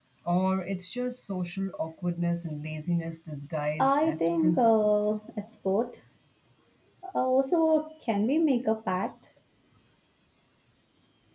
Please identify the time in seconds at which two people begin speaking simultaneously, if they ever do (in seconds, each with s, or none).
3.8 s